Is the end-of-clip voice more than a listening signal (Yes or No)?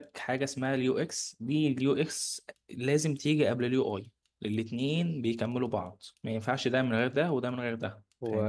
Yes